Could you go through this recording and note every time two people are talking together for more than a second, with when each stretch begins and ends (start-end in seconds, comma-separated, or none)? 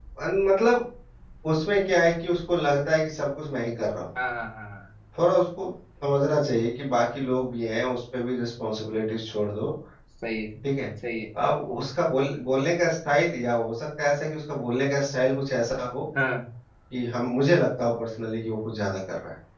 none